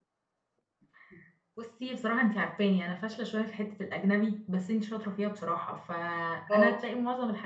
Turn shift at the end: No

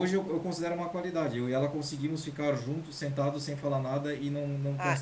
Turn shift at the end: Yes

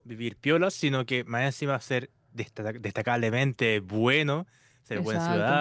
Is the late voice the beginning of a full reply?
No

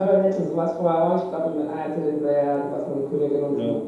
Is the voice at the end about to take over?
No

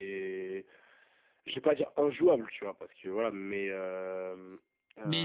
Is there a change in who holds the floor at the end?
Yes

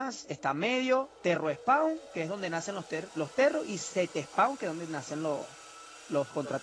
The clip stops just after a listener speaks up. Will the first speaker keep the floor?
No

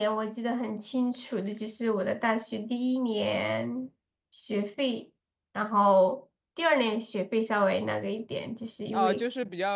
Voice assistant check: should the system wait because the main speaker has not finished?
No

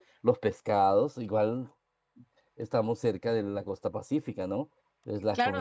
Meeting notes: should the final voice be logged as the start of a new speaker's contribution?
Yes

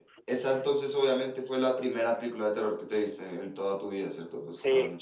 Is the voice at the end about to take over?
Yes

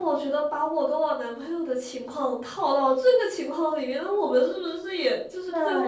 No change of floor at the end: No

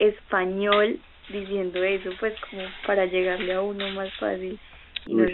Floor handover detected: No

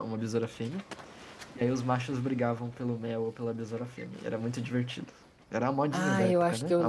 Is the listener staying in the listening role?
No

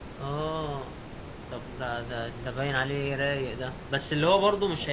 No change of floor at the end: Yes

